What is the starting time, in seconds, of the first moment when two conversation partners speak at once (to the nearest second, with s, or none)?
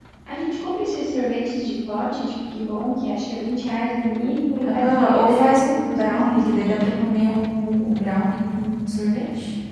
5 s